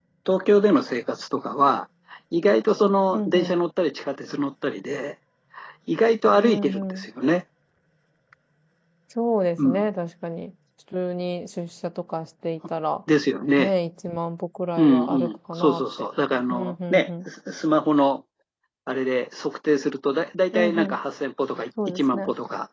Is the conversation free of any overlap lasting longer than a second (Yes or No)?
No